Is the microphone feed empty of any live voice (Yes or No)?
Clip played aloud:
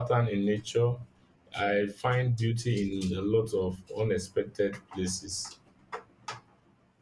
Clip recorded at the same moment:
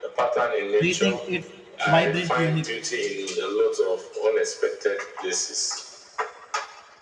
No